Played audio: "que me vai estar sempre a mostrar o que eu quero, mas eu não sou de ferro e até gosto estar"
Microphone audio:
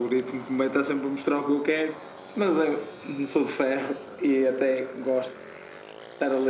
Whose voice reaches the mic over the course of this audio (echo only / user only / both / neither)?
echo only